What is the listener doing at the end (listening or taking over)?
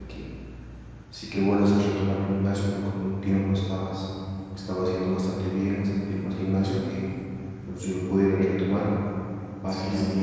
listening